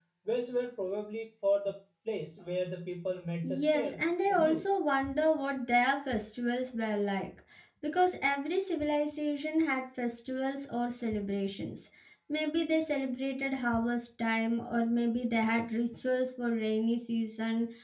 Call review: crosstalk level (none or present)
present